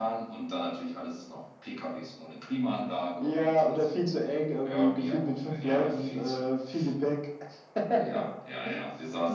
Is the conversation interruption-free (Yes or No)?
No